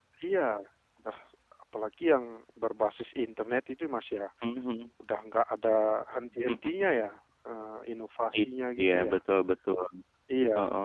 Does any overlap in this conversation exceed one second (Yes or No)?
No